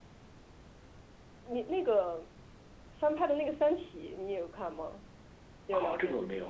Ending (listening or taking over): taking over